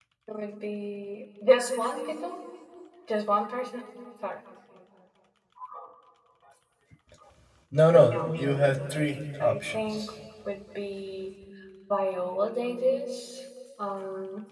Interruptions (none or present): present